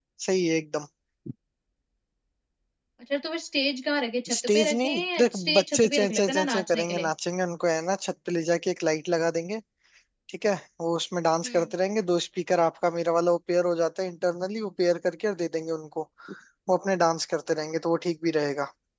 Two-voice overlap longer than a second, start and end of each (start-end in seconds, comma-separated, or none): 4.3-7.1